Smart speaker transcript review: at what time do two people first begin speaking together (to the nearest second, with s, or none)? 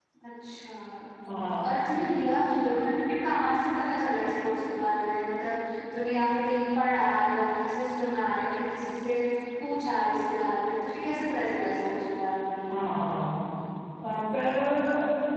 none